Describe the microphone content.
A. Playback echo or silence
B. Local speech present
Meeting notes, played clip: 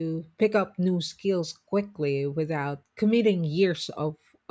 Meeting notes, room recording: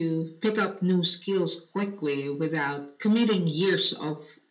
A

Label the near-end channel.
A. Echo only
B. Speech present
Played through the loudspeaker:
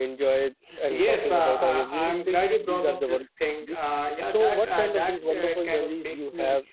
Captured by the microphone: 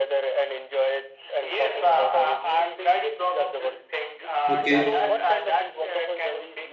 B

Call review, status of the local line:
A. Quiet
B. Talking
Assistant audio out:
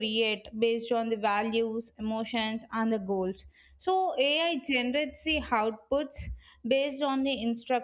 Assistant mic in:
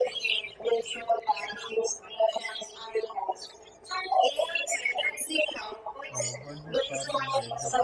B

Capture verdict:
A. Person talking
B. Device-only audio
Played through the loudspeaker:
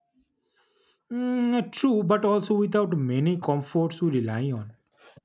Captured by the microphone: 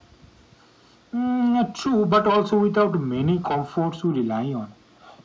B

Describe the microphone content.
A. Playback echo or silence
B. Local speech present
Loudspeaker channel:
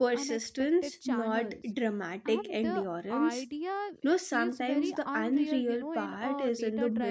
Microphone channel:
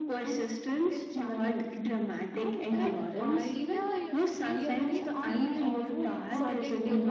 B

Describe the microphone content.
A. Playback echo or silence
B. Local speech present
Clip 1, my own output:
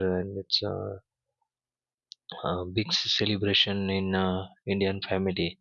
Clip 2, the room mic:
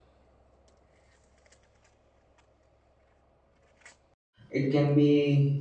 B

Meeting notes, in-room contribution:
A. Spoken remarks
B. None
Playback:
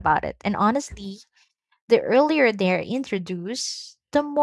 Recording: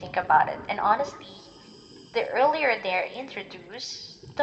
B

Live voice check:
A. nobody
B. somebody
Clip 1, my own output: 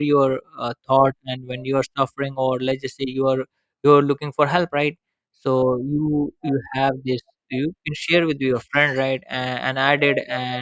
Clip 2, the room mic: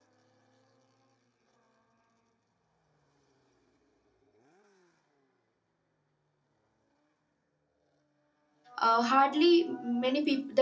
B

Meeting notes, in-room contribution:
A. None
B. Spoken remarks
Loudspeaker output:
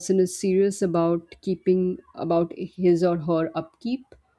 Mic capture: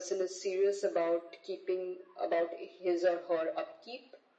A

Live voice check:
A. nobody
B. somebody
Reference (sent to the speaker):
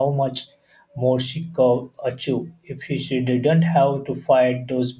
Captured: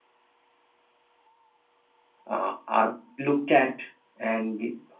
B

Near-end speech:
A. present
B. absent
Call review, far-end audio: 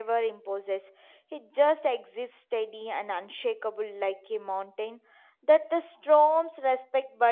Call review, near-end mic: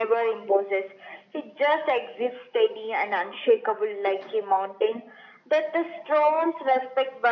B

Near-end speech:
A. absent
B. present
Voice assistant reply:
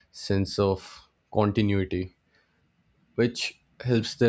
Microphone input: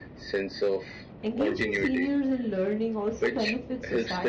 B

